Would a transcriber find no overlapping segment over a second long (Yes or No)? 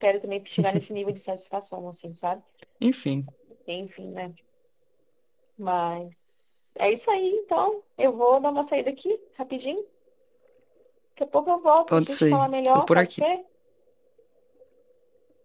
No